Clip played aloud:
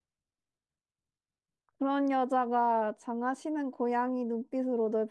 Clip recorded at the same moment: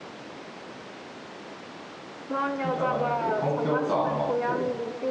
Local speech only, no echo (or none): 진짜 만약에 성격도 안 맞고